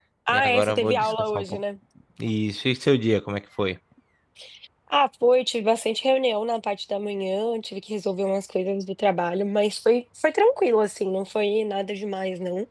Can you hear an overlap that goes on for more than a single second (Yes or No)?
Yes